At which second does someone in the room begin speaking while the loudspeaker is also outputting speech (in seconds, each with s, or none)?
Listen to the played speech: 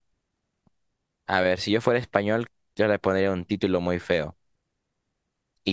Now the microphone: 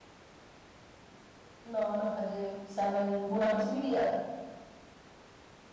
1.6 s